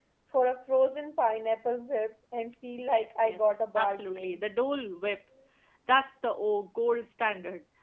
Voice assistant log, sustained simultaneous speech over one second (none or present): present